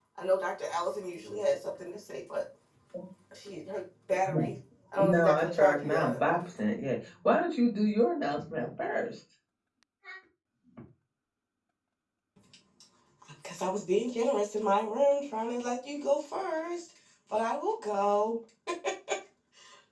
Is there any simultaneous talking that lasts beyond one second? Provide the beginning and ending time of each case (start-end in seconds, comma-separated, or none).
5.0-6.4